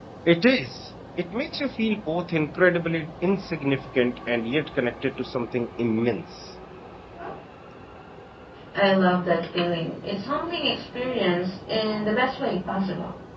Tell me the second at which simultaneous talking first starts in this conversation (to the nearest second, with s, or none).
none